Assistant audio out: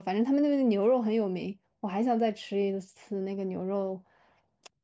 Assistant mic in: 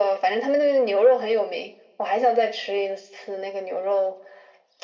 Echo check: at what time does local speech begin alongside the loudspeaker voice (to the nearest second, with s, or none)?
none